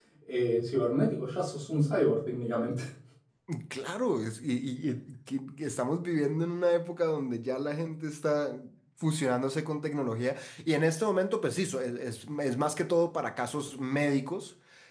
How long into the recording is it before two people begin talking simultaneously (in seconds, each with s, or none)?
none